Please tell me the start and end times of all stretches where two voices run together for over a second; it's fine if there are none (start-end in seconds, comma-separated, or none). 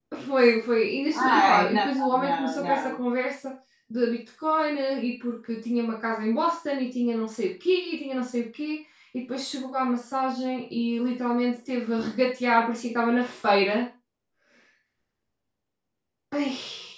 1.1-2.9